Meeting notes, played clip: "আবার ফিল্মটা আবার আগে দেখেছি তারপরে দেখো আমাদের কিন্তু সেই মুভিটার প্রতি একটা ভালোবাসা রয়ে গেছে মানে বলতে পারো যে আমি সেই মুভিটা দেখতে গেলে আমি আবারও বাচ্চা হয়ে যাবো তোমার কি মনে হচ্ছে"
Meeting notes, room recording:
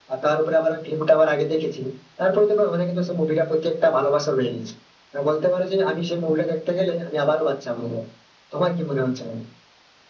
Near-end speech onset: none

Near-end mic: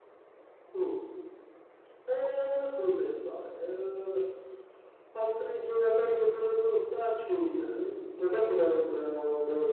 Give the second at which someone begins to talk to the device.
none

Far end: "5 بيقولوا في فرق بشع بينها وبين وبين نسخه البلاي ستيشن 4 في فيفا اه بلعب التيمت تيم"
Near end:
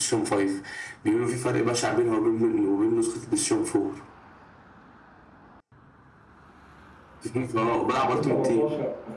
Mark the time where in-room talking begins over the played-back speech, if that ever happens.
8.0 s

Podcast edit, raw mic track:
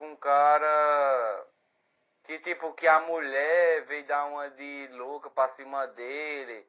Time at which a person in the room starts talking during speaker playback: none

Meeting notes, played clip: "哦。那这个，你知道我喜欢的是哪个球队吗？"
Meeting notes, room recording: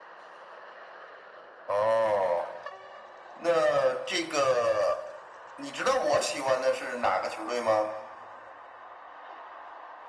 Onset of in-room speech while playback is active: none

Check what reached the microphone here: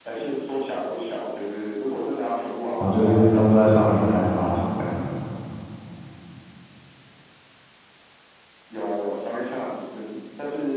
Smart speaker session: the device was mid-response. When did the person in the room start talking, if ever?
2.8 s

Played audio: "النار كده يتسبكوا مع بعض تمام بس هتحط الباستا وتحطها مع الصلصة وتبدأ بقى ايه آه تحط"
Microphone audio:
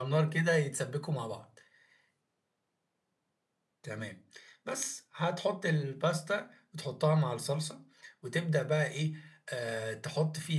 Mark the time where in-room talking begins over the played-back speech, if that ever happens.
none

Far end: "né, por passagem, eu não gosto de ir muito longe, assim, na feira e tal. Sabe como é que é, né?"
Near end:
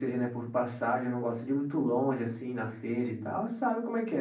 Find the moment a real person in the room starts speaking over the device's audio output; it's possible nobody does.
3.0 s

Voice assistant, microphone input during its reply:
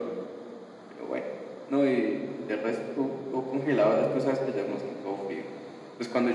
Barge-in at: none

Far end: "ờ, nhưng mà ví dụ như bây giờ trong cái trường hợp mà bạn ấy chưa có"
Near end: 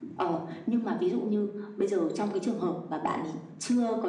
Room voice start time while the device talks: none

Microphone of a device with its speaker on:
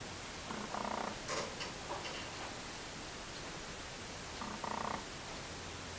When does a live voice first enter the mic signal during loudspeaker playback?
none

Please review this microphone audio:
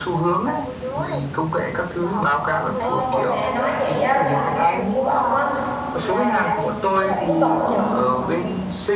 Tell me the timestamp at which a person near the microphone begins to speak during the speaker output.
2.8 s

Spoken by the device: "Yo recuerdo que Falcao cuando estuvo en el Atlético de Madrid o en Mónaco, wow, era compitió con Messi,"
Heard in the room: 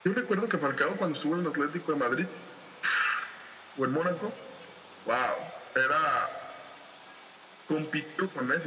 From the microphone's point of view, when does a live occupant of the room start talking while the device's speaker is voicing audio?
none

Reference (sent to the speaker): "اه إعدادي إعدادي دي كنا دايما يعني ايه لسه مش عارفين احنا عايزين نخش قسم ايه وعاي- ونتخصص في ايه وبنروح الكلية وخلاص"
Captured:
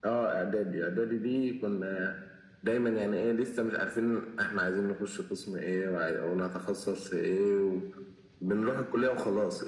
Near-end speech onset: none

